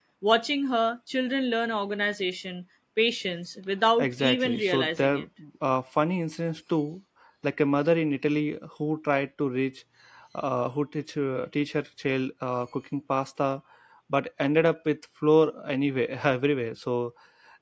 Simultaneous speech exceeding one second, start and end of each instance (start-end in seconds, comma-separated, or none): 4.0-5.2